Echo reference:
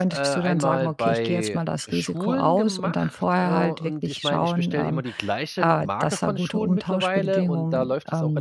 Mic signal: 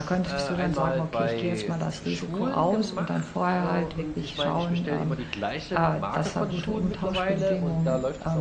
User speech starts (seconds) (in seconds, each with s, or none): none